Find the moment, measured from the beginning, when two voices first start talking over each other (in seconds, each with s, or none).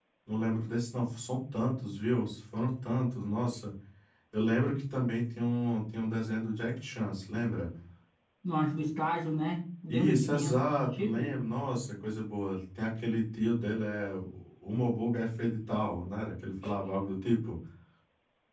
9.9 s